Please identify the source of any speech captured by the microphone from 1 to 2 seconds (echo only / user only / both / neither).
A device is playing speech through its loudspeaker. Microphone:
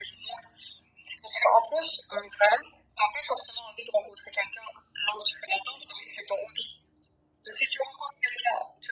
echo only